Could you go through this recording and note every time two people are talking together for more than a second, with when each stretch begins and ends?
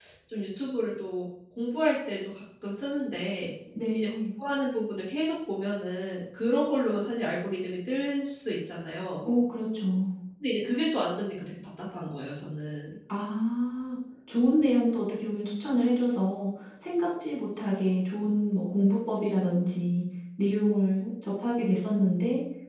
none

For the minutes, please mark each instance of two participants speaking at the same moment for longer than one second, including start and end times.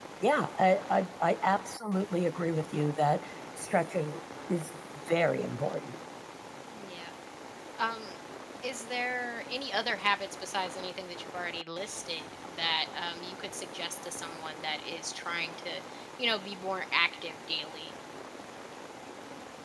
none

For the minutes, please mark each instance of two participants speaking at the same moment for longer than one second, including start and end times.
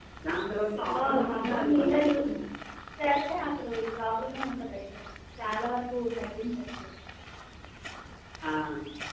0.9-2.3

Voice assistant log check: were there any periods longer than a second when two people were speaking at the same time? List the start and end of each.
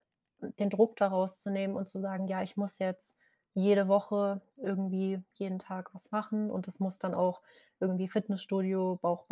none

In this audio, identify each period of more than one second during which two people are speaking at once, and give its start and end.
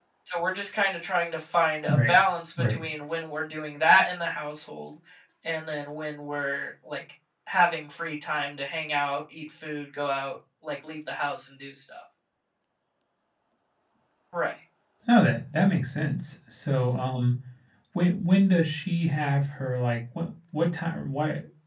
none

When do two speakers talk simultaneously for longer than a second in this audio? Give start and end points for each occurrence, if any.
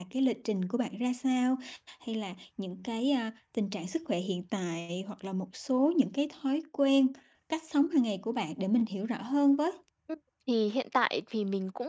none

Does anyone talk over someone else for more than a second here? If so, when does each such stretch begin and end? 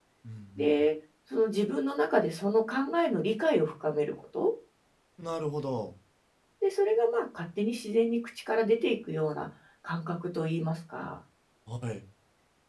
none

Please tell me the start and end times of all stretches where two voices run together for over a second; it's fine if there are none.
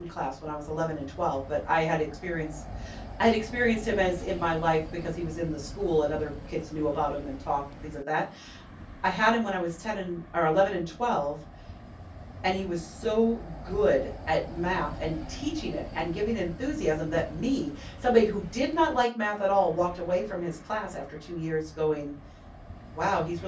none

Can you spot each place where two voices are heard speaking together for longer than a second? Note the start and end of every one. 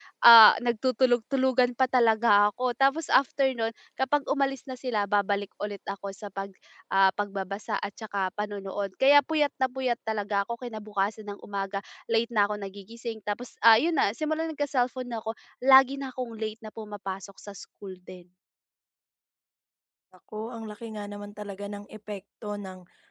none

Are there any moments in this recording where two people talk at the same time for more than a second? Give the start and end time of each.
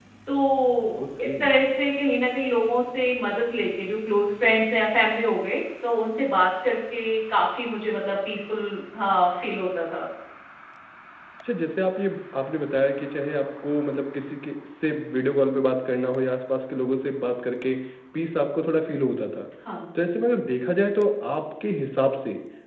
none

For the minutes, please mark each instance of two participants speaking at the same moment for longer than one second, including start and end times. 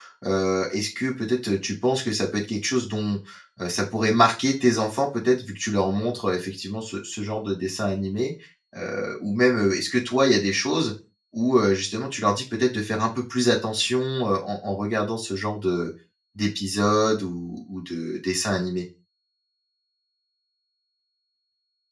none

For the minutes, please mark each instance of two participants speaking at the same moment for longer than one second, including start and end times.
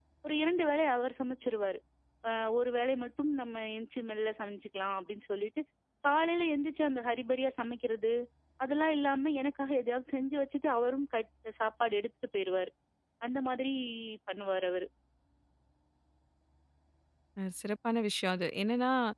none

